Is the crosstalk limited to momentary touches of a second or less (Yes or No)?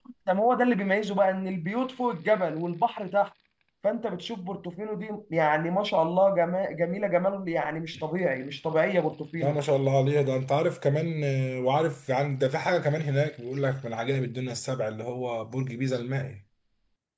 Yes